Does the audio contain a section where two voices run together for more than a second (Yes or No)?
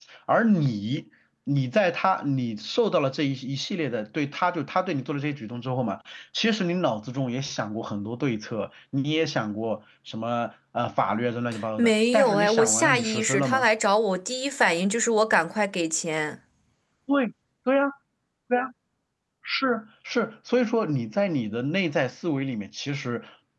Yes